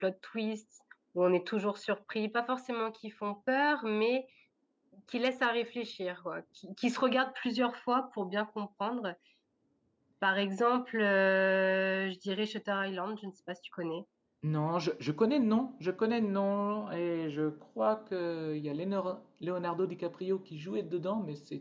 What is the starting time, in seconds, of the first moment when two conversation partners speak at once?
none

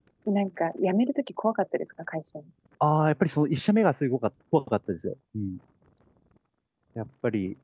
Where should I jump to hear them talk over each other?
none

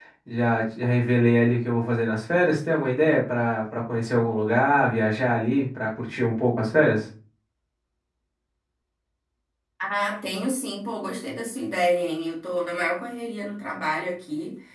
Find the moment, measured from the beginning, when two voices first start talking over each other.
none

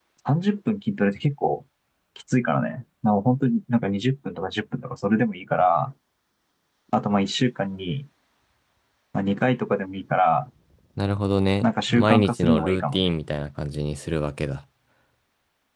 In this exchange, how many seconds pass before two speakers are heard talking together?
12 s

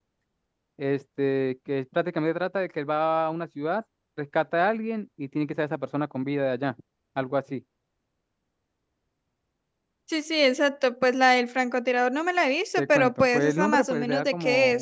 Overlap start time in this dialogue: 13 s

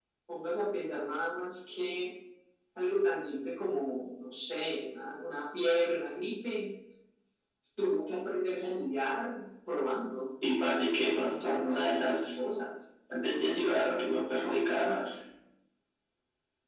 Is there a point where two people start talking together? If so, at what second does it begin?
11 s

